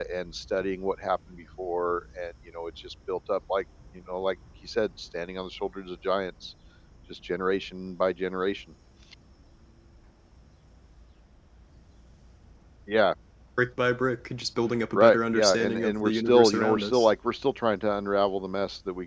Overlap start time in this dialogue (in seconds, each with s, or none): 14.9 s